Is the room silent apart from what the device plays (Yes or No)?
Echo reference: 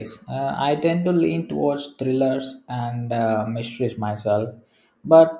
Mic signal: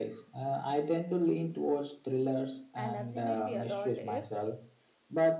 No